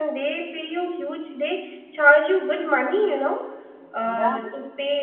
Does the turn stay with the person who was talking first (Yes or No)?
Yes